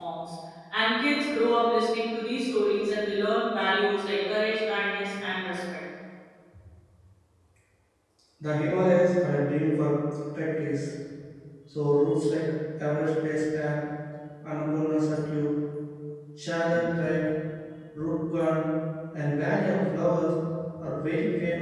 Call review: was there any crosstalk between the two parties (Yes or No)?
No